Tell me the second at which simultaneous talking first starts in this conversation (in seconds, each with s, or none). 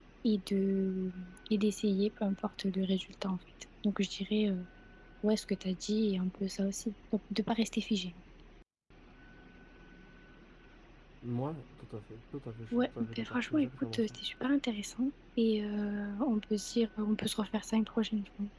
12.7 s